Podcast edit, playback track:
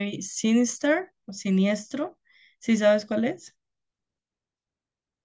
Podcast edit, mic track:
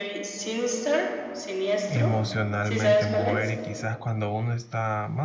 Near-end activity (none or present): present